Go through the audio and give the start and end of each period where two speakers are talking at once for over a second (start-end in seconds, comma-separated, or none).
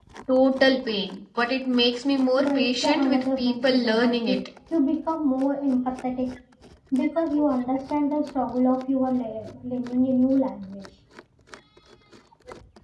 2.4-4.4